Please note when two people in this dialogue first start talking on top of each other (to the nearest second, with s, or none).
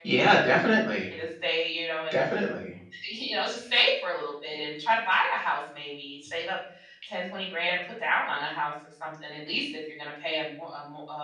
none